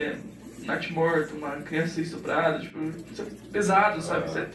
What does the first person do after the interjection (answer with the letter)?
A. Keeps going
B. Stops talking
A